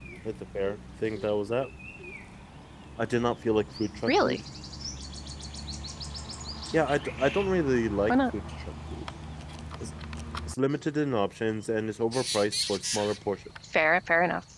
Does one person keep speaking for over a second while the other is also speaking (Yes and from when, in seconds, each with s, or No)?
No